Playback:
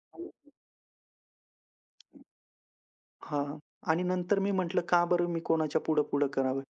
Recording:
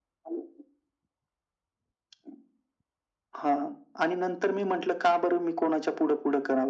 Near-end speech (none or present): none